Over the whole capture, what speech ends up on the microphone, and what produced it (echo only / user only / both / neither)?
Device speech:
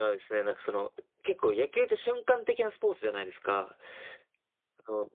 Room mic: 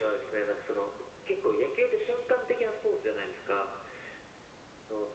echo only